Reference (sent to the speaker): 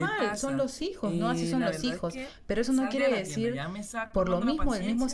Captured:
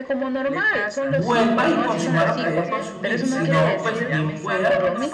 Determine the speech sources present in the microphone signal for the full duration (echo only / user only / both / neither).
both